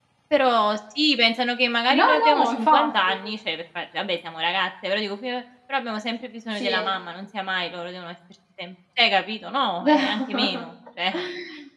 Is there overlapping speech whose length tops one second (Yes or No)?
Yes